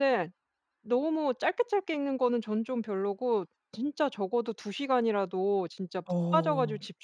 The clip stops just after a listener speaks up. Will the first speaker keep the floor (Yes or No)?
Yes